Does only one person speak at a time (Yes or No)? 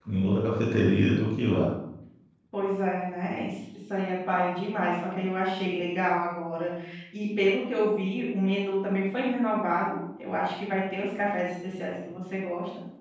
Yes